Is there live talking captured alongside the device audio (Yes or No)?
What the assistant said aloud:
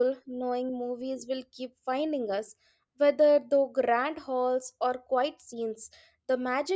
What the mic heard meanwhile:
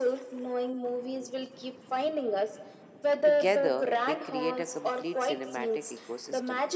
Yes